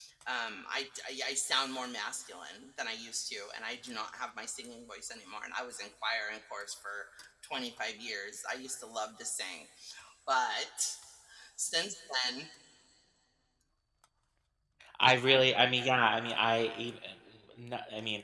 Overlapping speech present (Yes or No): No